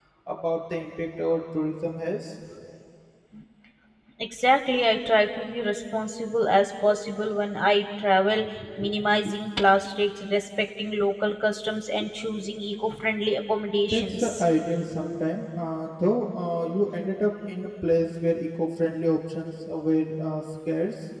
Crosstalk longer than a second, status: none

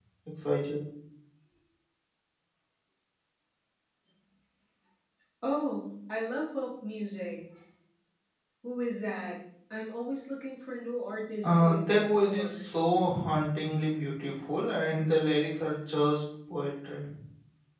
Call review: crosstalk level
present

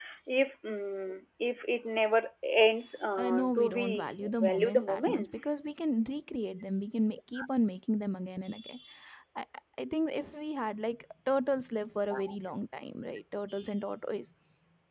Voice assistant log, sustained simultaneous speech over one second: present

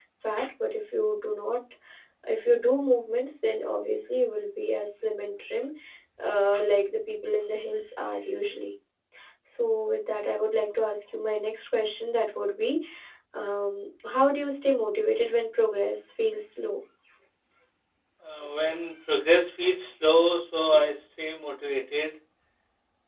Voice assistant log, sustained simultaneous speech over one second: none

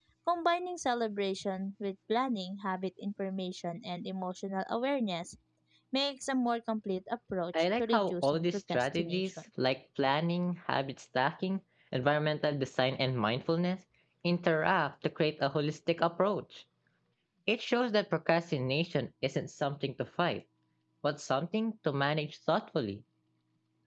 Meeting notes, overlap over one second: present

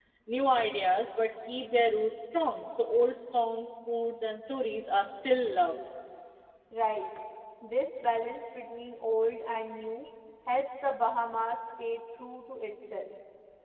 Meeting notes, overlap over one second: none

